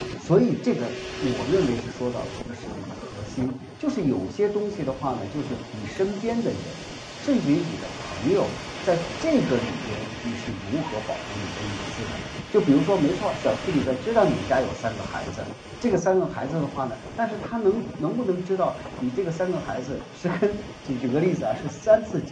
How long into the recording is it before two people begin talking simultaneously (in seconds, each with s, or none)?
none